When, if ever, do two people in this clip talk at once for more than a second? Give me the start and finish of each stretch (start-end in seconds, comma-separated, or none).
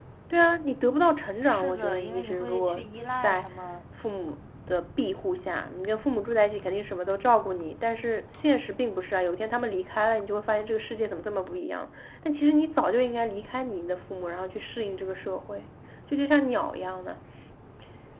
1.5-2.8